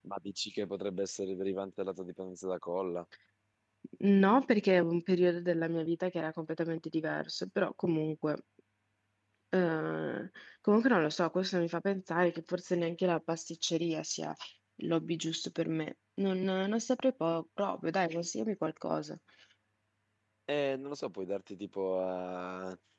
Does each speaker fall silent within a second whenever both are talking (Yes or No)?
Yes